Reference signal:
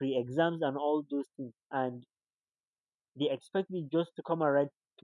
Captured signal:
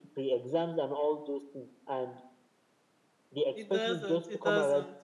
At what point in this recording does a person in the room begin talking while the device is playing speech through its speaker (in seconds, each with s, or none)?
3.5 s